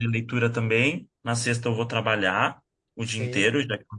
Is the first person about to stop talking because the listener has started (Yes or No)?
No